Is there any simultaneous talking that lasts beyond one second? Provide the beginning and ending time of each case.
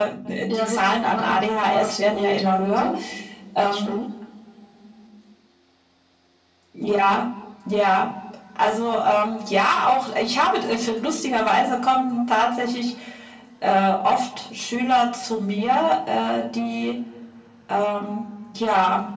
0.5-2.9

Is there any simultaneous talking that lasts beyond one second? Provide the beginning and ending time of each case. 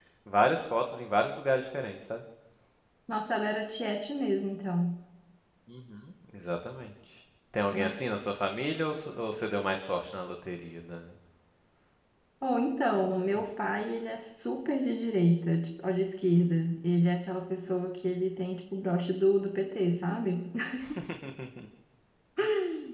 none

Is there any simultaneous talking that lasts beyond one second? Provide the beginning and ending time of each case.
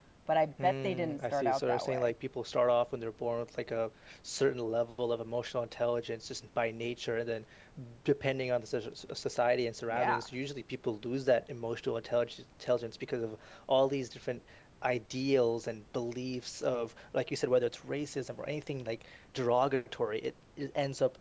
0.6-2.1

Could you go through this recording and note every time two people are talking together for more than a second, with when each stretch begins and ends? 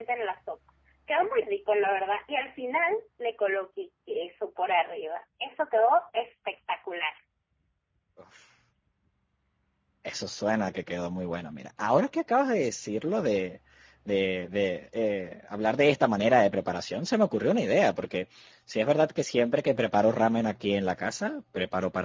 none

